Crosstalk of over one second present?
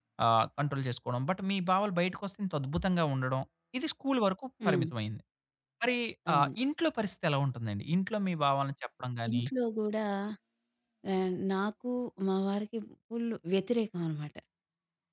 No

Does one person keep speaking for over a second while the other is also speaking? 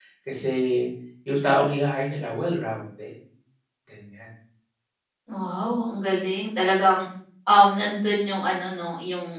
No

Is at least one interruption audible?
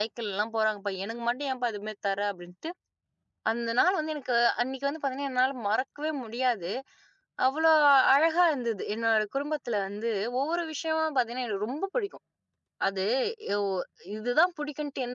No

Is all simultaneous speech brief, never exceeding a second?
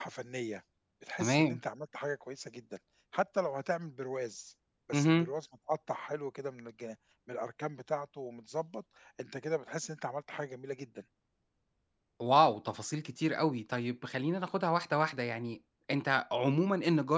Yes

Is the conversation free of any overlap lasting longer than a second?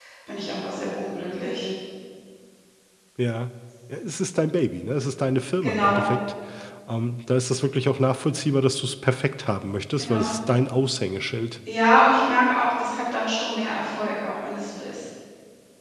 Yes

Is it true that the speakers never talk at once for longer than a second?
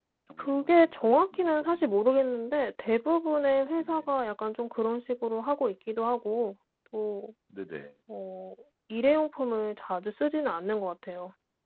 No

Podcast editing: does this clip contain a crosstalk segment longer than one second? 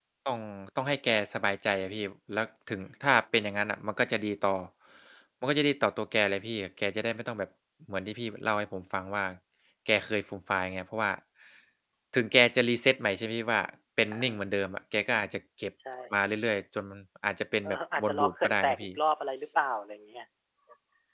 Yes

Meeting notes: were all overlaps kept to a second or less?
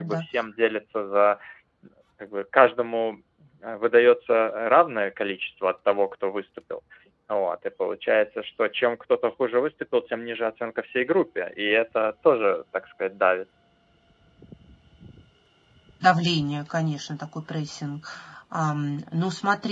Yes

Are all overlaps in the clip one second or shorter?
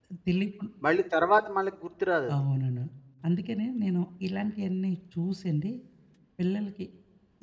Yes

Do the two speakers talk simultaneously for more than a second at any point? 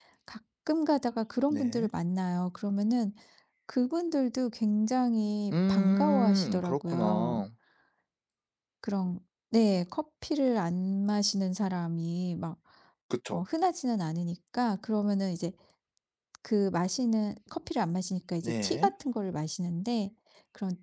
Yes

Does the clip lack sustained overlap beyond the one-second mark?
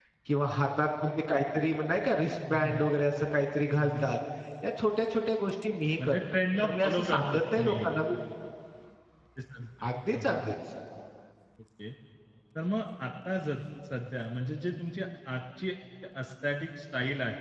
No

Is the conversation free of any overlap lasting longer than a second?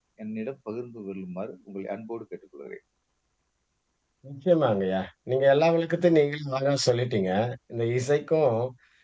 Yes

